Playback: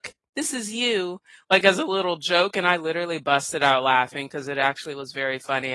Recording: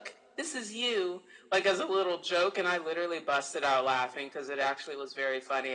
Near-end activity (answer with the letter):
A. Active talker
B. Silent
B